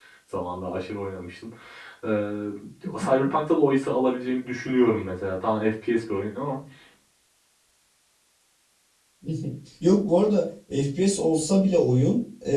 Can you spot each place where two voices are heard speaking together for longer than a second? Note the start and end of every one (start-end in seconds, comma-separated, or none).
none